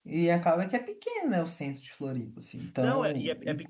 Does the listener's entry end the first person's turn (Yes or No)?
Yes